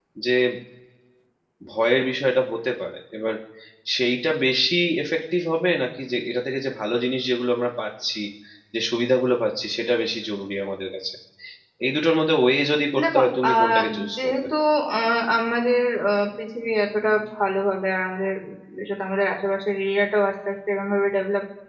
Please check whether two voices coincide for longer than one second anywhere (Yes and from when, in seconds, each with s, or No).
Yes, from 12.9 s